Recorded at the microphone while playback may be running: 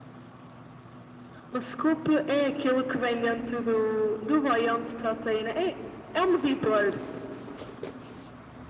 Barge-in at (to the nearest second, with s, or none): none